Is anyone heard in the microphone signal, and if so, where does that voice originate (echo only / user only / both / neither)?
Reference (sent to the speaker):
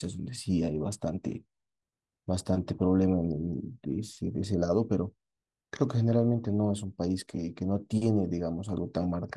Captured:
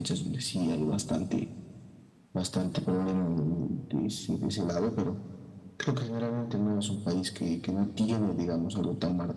echo only